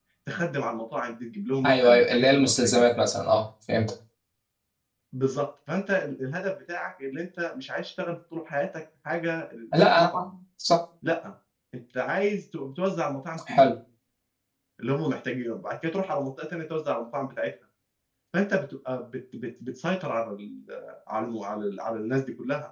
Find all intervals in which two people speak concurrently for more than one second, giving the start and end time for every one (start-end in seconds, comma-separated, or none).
1.6-2.9